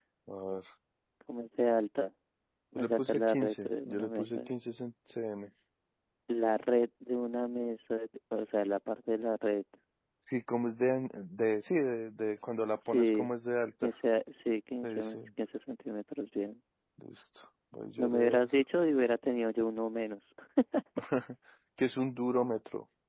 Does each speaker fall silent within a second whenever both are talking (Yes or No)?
No